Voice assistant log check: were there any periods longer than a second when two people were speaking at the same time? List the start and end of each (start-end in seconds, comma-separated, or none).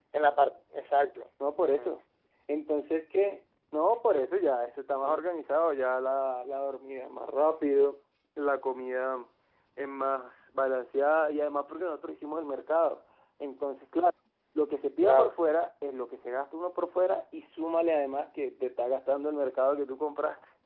none